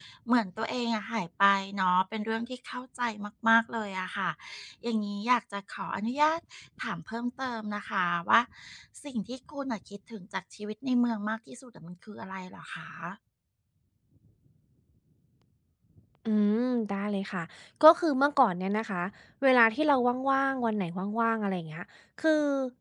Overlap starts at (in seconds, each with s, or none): none